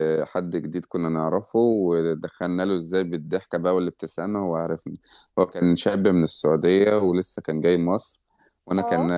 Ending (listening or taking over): listening